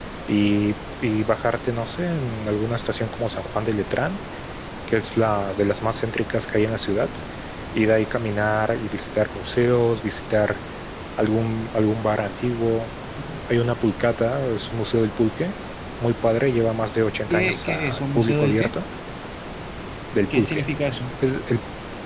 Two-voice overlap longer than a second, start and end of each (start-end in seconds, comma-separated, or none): 17.3-18.7